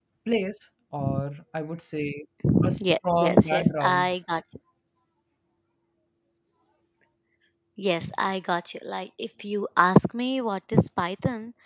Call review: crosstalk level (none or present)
present